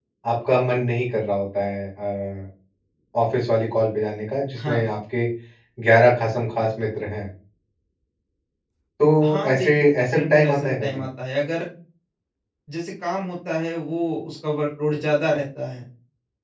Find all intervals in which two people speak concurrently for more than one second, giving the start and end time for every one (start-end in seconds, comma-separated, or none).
9.5-11.0